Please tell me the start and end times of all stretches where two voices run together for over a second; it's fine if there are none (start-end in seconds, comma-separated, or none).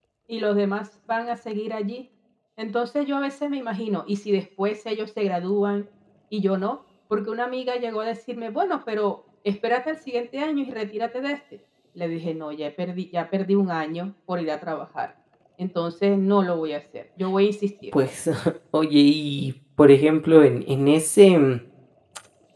none